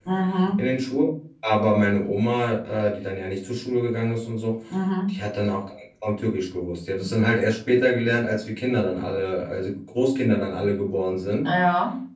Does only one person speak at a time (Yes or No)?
Yes